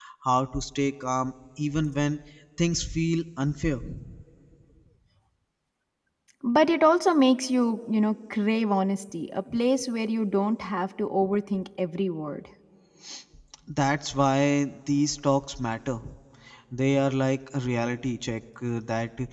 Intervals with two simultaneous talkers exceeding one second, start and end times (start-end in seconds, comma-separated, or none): none